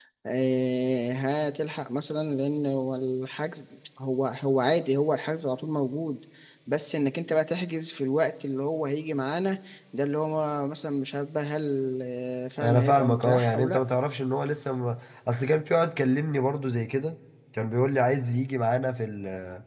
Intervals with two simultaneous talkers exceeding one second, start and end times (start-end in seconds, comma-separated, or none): 12.6-13.8